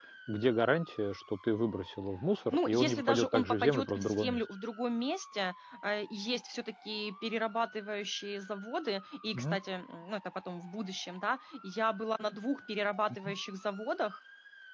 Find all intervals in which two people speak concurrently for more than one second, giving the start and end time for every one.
2.5-4.4

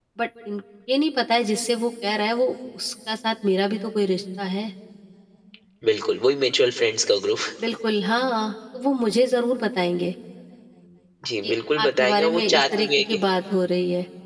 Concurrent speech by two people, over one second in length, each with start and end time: 11.4-13.0

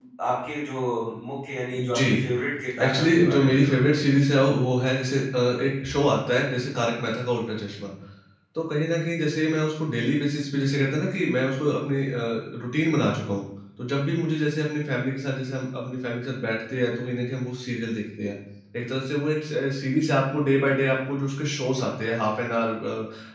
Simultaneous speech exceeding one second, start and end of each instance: 2.8-4.1

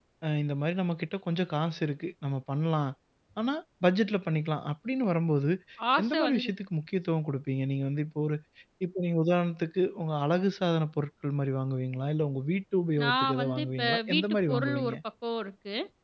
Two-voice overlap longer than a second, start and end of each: 13.0-15.0

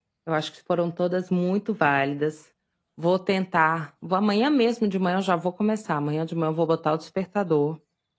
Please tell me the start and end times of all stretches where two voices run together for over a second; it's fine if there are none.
none

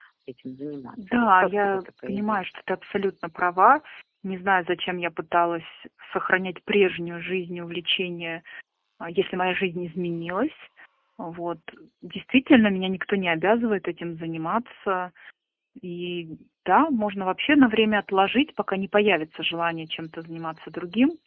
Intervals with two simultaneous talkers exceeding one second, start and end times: 1.2-2.4

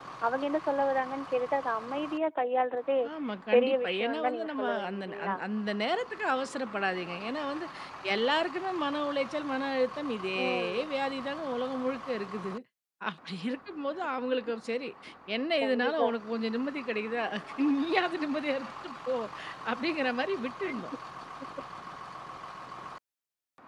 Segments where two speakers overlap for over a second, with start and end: 3.5-5.4

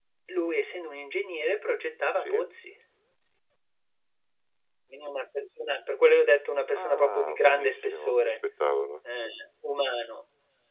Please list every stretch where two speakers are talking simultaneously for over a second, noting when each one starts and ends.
6.7-8.3

